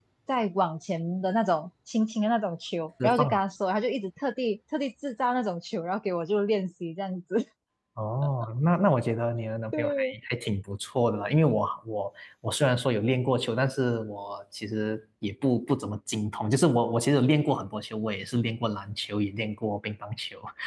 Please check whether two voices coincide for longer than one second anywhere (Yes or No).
No